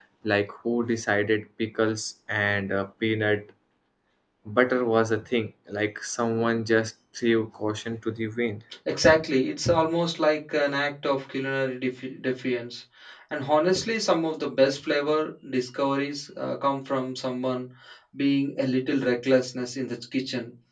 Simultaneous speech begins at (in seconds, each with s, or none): none